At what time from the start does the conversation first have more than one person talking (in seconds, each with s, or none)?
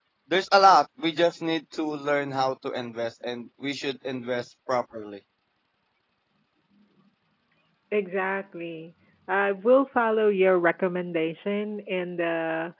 none